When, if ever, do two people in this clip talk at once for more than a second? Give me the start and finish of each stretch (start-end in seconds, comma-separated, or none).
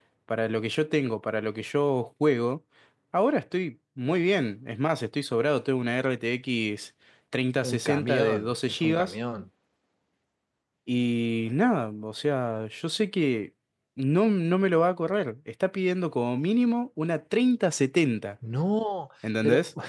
7.6-9.1